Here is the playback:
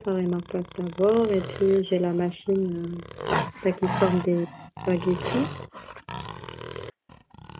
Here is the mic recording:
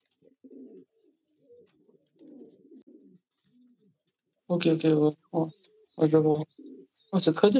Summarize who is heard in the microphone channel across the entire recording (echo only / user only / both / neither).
user only